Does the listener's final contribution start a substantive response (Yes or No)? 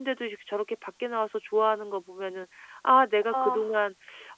No